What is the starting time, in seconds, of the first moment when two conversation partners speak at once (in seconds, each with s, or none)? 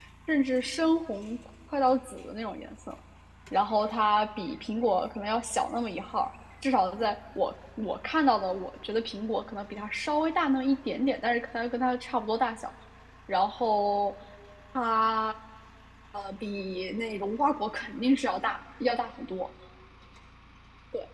none